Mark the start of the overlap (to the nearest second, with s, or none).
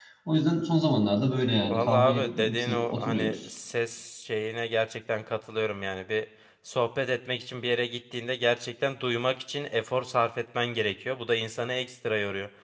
2 s